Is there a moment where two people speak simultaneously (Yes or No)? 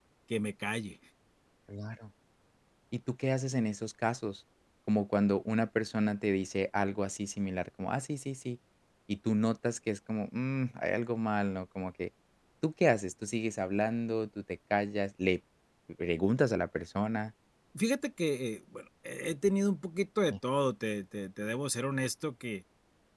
No